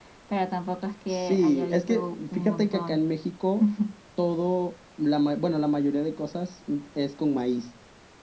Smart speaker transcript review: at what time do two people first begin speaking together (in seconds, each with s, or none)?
1.1 s